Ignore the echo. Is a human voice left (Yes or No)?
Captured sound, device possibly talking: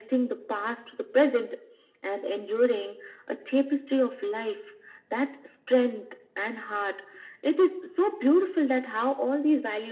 No